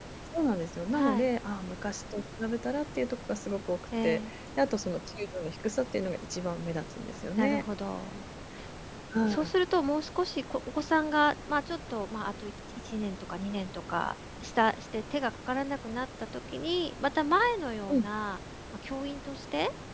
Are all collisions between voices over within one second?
Yes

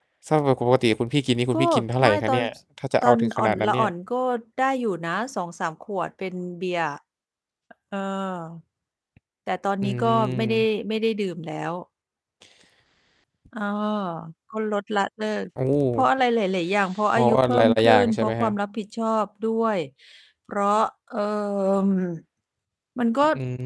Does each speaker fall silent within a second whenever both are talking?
No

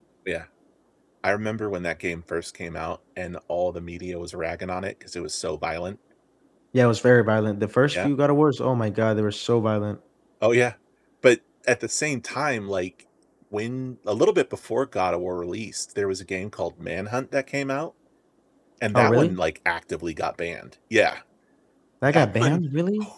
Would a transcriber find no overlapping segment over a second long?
Yes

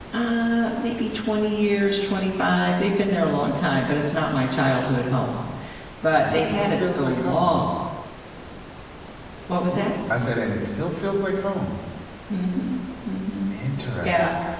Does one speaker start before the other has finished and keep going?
Yes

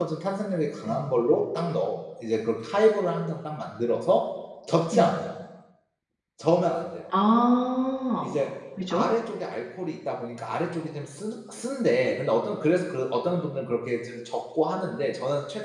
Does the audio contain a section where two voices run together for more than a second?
No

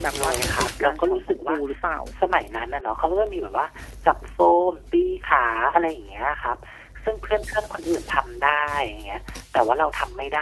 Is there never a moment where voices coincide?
No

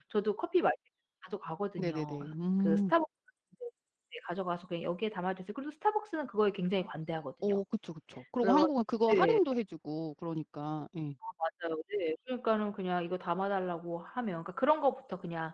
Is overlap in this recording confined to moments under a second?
Yes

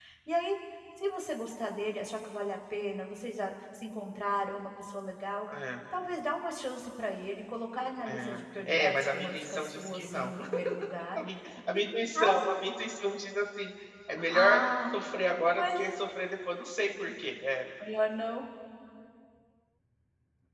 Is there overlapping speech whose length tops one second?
Yes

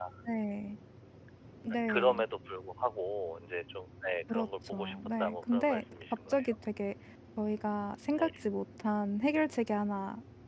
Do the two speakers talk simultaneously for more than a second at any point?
Yes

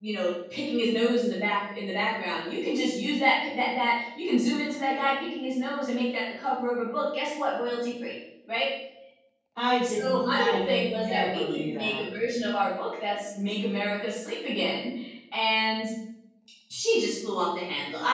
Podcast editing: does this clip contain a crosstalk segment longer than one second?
Yes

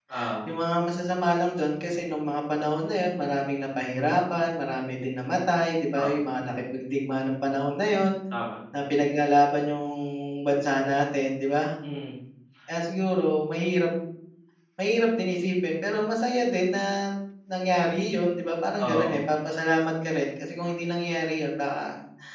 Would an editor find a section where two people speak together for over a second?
No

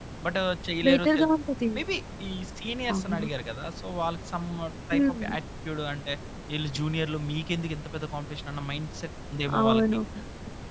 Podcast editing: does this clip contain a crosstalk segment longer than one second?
No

